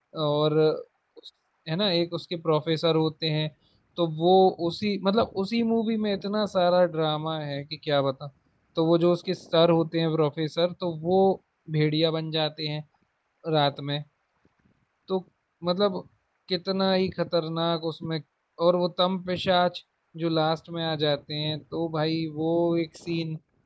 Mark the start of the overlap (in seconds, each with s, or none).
none